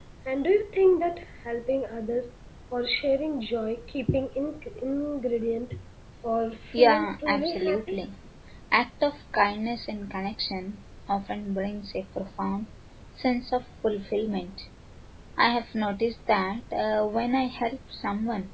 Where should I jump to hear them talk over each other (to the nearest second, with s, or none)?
7 s